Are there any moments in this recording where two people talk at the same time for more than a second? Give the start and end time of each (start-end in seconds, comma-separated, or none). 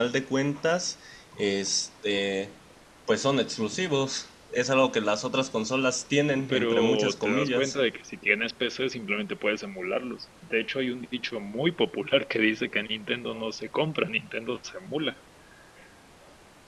6.5-7.8